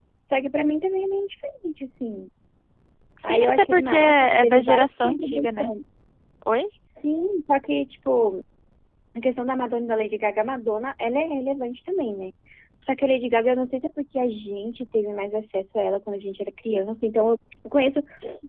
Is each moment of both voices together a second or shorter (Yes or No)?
No